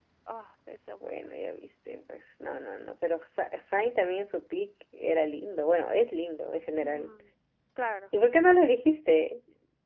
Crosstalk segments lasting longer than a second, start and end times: none

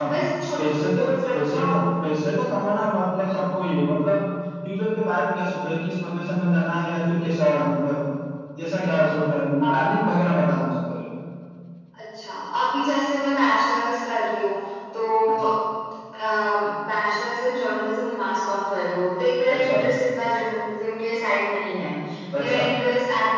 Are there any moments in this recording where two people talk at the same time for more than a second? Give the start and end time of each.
0.6-1.8

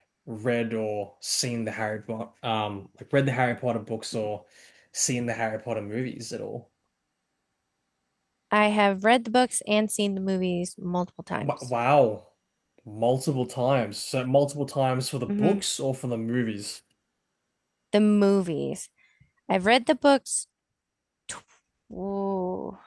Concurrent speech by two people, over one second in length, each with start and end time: none

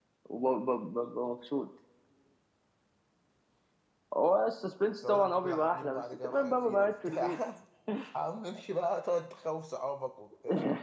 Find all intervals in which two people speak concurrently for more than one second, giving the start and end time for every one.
5.0-7.3

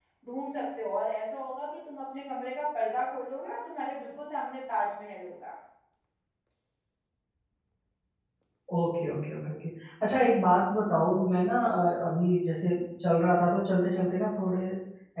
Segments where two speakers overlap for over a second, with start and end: none

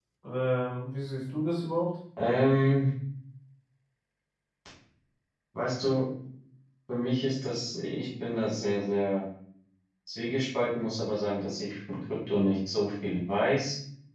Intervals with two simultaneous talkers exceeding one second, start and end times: none

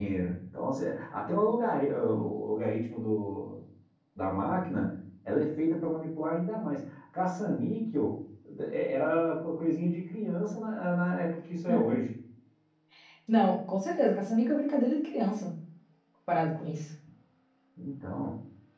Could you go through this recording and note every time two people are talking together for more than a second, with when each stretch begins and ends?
none

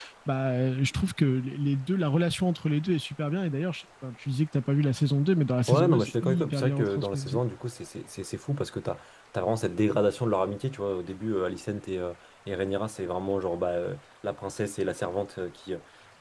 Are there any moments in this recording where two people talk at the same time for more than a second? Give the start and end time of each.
5.7-7.4

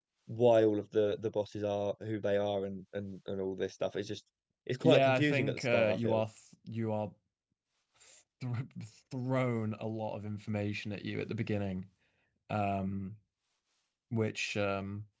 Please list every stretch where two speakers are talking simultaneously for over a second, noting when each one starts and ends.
4.8-6.2

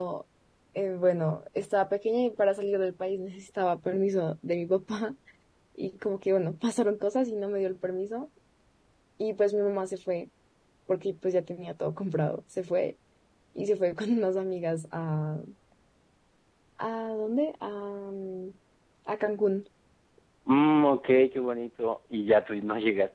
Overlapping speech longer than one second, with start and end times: none

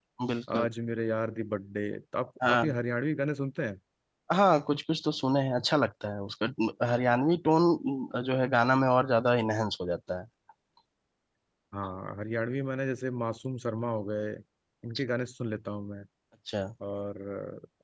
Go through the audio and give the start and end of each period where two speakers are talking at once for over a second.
none

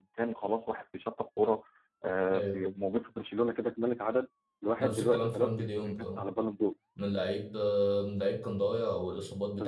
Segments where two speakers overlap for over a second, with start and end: 4.8-6.2

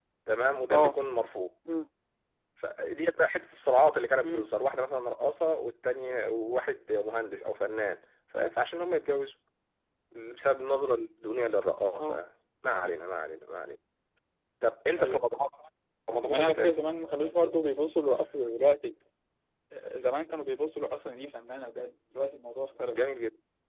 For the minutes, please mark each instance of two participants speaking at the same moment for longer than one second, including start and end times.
none

